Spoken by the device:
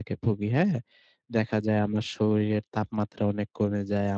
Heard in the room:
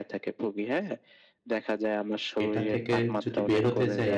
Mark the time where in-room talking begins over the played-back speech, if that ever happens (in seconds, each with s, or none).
2.5 s